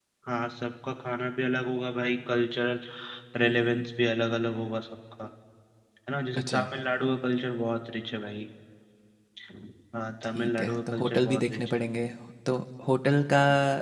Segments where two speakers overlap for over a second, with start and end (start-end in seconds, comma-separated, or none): 10.3-11.8